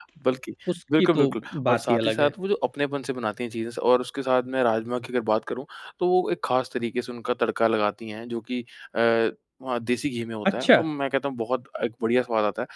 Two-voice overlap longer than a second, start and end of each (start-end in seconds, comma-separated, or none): 1.0-2.3